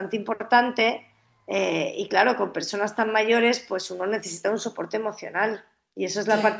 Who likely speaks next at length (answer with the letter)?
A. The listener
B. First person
B